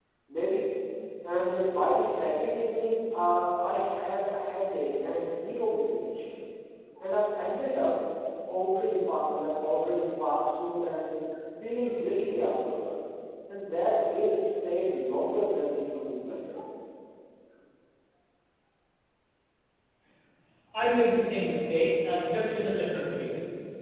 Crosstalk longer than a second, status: none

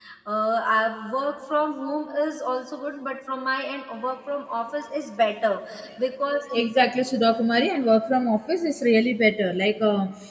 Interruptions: none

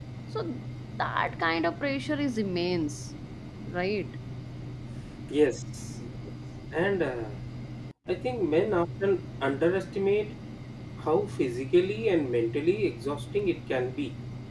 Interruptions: none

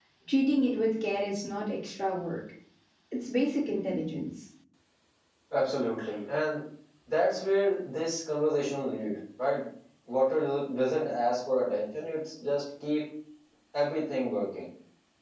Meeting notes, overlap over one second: none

